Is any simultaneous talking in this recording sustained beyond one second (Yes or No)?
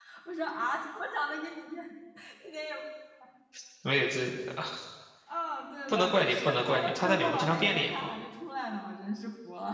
Yes